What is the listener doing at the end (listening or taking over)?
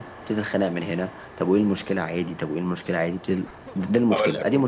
taking over